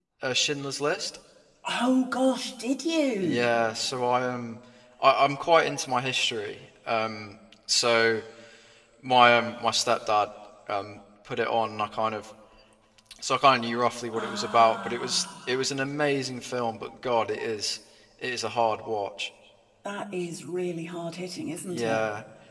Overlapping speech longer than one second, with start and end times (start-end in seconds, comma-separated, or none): 14.1-15.6